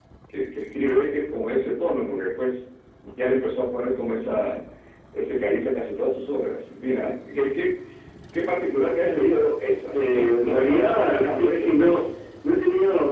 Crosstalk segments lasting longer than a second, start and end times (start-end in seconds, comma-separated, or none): 9.9-12.1